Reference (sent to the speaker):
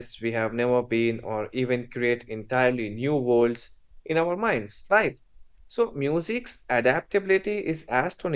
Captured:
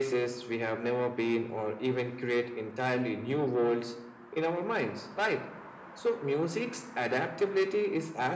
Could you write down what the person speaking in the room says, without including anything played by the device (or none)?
none